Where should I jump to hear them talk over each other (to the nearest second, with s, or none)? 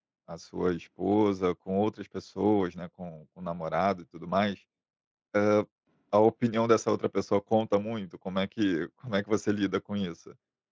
none